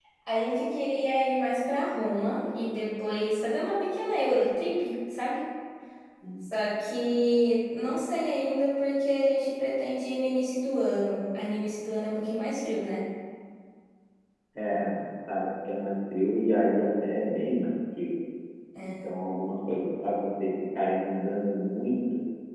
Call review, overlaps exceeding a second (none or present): none